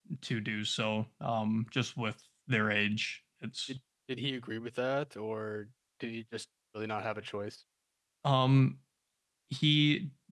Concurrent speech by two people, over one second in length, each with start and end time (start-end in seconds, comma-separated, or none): none